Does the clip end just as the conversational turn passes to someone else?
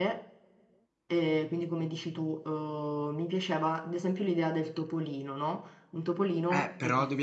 Yes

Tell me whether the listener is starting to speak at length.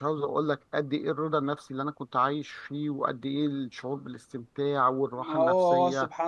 Yes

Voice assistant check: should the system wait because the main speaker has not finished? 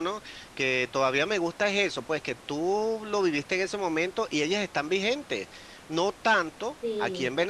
Yes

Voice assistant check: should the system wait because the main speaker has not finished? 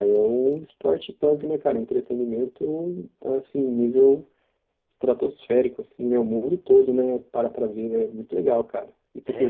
No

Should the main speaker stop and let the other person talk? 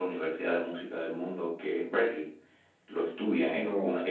No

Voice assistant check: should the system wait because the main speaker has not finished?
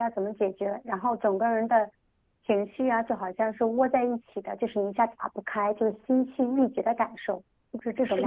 No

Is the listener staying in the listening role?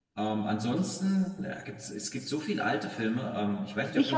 No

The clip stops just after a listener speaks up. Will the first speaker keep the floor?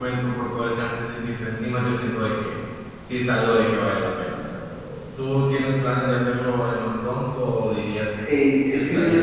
No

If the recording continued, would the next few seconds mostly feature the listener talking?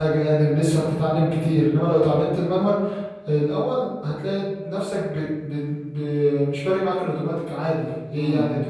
Yes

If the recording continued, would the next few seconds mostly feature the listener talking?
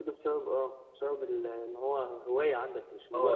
Yes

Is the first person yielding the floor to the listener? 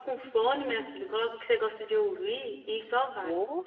Yes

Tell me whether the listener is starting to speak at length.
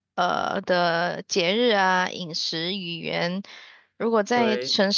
No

